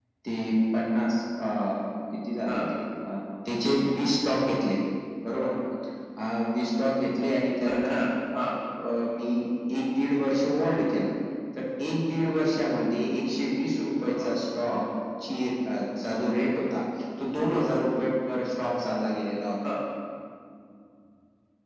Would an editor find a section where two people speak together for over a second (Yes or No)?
No